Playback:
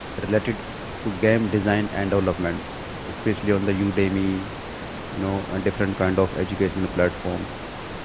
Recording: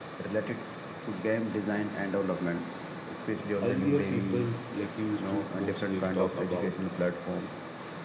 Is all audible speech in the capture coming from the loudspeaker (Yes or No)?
No